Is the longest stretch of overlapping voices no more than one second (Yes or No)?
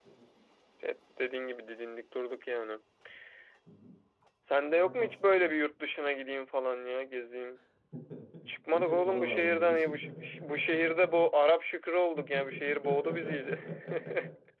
No